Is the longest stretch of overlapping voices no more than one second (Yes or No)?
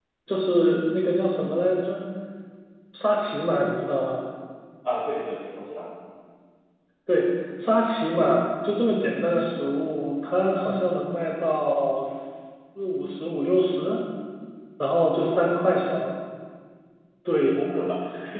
Yes